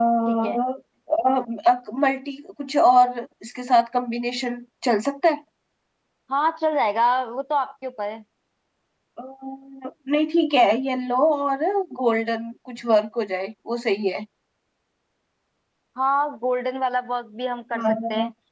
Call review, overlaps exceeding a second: none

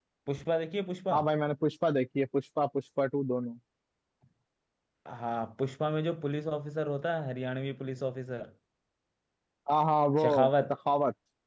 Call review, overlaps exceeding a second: none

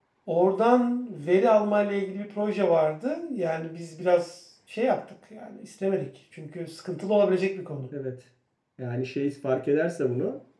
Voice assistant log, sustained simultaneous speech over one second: none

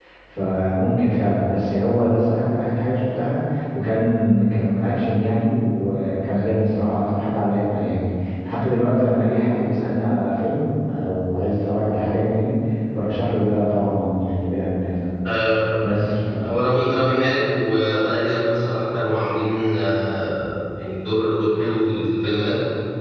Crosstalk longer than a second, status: none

